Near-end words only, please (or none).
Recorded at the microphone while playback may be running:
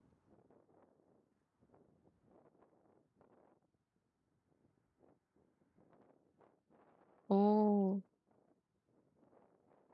오.